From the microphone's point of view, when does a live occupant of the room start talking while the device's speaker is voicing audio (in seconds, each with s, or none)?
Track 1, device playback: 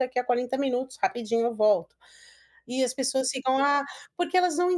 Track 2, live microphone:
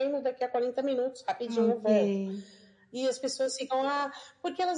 1.4 s